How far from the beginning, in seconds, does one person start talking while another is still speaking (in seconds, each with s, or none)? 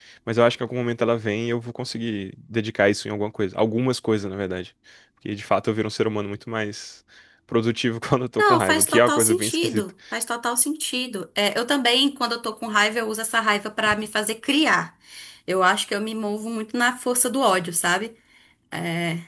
8.4 s